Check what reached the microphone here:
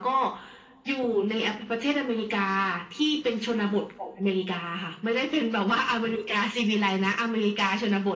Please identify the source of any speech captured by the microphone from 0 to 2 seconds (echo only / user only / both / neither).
echo only